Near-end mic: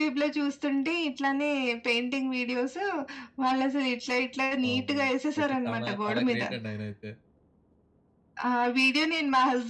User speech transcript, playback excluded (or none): వామ్మో! అయితే చానా చాలా గ్రేటండి ఆయనయితే.